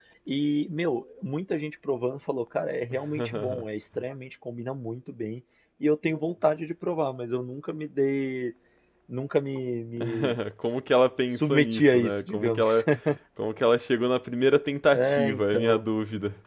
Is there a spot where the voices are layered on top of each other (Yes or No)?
Yes